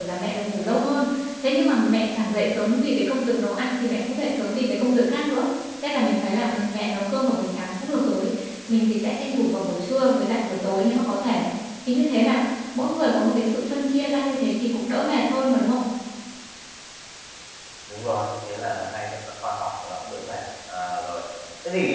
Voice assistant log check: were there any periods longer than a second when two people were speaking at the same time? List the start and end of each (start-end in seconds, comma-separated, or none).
none